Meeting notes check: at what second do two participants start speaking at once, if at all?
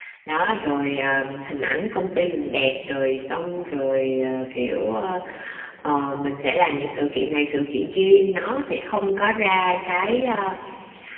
none

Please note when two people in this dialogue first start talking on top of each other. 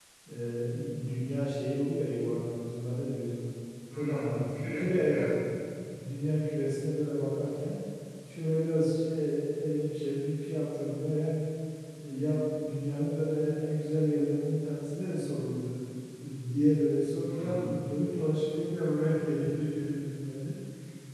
4.0 s

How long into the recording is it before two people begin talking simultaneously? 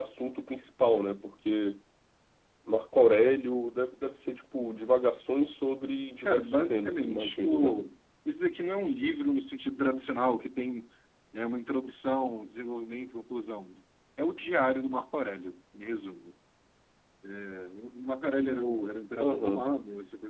6.2 s

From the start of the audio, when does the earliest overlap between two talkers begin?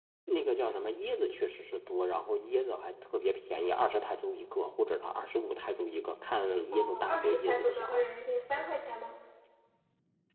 6.7 s

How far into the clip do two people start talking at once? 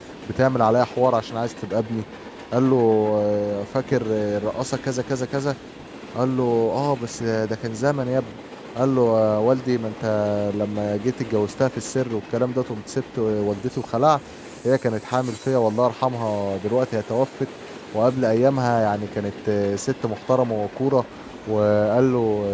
none

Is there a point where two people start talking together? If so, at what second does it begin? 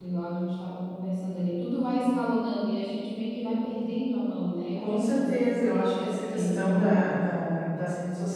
4.7 s

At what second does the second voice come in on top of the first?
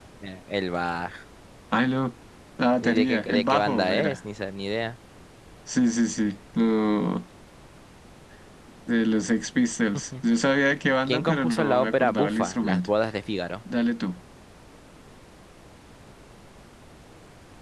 2.8 s

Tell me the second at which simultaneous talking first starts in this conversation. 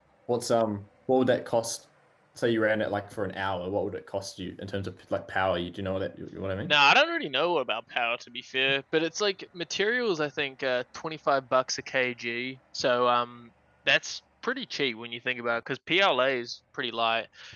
none

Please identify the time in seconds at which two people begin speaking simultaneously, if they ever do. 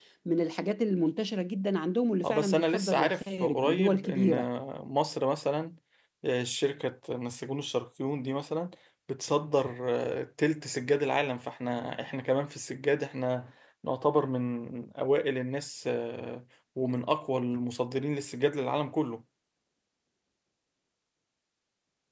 2.2 s

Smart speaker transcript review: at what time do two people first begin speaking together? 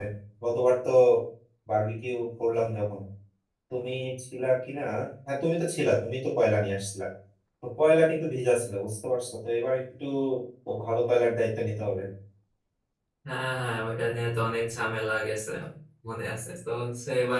none

